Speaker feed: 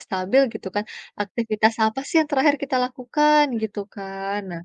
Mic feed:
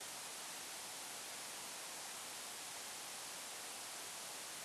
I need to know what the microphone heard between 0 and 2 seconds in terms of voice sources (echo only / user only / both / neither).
neither